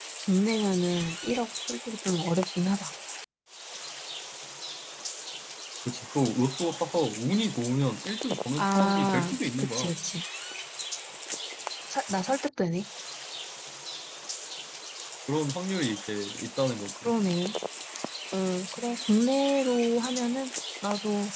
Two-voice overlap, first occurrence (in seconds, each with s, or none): 8.6 s